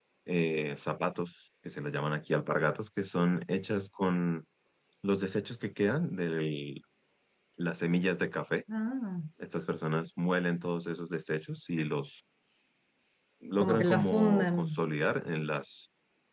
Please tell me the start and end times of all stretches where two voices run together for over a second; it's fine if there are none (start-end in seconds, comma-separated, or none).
13.6-14.8